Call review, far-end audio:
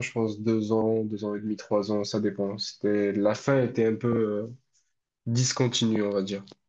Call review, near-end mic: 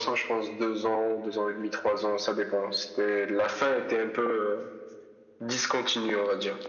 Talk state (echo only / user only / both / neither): echo only